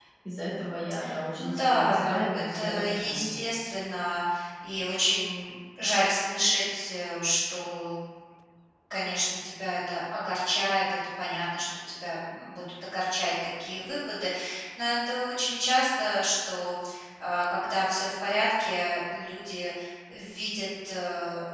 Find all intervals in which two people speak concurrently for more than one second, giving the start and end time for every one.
1.4-3.4

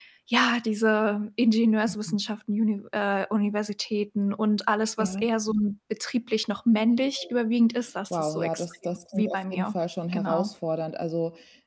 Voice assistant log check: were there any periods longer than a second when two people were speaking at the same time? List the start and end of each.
8.1-9.7

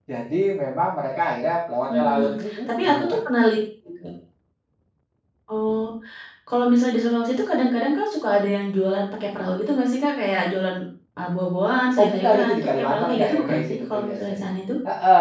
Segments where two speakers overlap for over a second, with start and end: 12.0-14.5

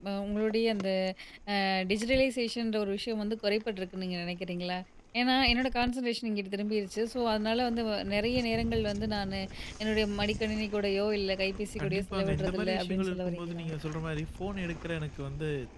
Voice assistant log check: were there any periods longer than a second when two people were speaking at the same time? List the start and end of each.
11.8-13.6

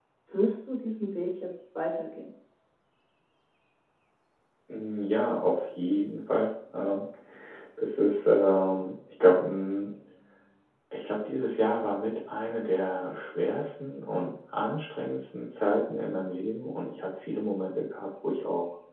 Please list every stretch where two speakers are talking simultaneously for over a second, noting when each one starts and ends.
none

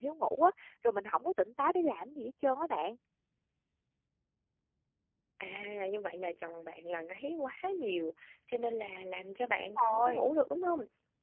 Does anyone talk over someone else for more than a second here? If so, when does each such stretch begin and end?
none

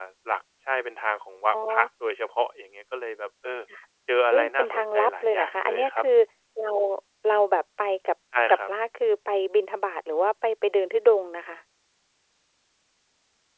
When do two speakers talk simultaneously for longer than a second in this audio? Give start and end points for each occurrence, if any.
4.3-6.1

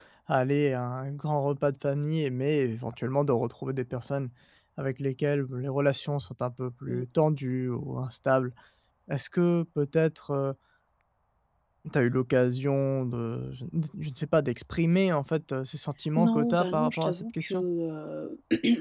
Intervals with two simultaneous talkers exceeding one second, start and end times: 16.2-17.6

